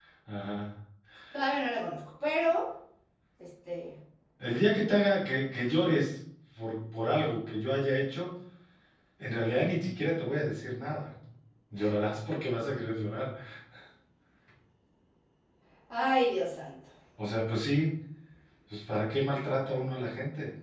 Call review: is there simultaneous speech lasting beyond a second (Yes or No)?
No